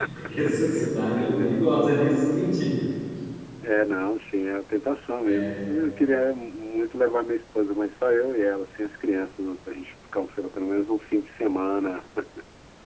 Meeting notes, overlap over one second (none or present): none